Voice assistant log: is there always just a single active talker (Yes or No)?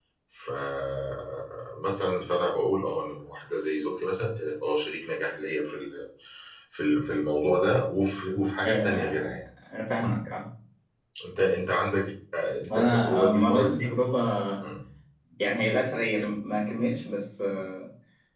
No